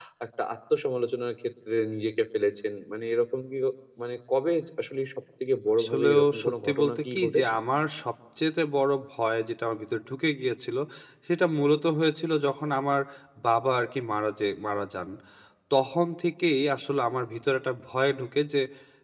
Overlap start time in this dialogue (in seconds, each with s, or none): 5.8 s